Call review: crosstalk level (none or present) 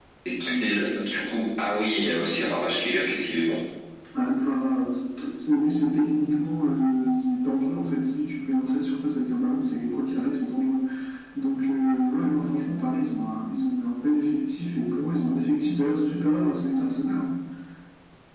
none